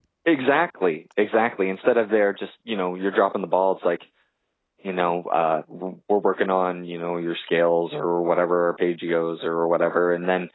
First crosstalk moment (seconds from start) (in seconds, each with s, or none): none